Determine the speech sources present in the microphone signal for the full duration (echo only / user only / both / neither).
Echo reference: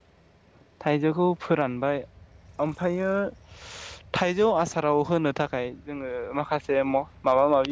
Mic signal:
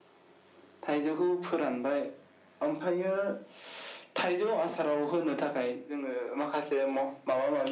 echo only